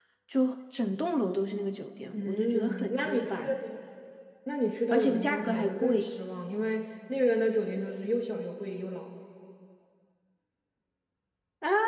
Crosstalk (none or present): present